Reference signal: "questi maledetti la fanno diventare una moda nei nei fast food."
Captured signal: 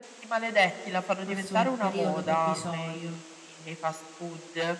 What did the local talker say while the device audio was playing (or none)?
Forse un periodo provvisorio.